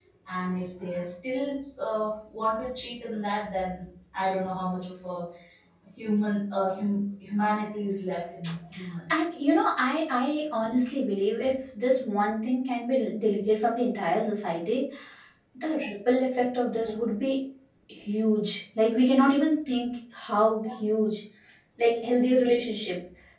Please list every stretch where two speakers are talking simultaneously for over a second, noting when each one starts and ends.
none

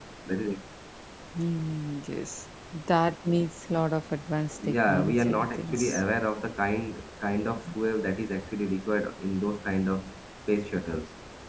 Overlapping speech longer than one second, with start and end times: 4.7-6.0

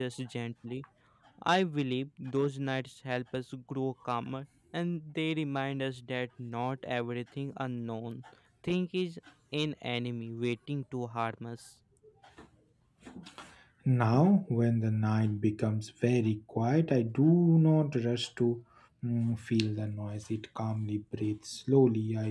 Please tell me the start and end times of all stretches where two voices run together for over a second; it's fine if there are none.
none

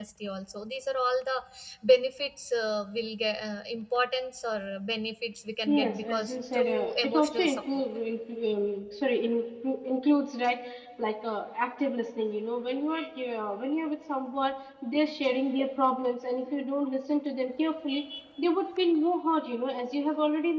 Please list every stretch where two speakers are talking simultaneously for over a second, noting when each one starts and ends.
5.7-7.8

